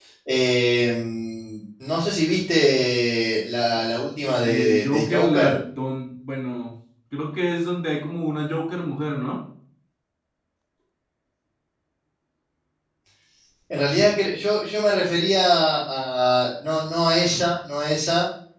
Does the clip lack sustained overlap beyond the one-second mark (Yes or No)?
No